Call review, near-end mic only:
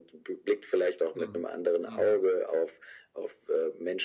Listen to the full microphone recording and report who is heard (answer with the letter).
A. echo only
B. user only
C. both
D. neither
C